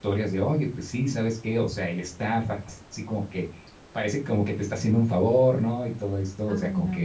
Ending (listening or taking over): listening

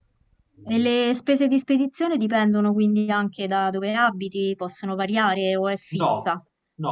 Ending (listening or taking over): taking over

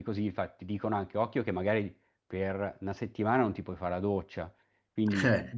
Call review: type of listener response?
listening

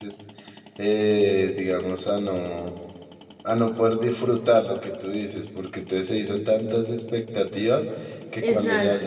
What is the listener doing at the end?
listening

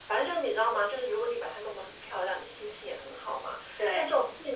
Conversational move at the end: listening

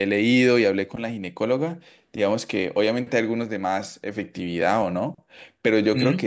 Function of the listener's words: listening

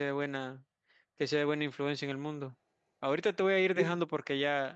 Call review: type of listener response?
listening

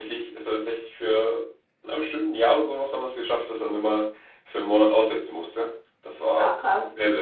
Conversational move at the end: taking over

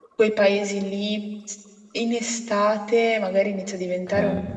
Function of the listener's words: listening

